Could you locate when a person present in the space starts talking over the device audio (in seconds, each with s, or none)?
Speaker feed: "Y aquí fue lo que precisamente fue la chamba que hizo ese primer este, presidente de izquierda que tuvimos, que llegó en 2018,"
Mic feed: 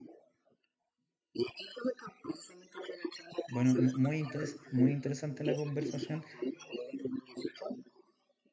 3.4 s